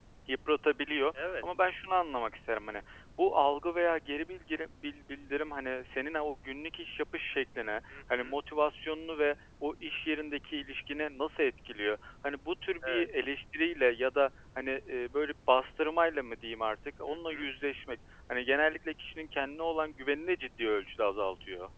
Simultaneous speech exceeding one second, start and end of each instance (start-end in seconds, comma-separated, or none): none